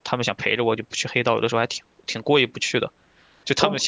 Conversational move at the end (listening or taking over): listening